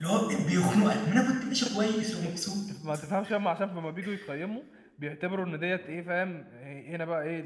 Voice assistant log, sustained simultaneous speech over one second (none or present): none